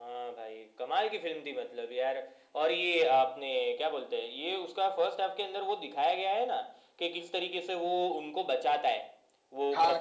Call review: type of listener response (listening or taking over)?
taking over